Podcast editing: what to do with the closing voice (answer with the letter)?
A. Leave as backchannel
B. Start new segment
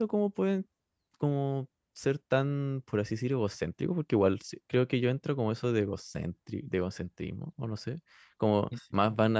A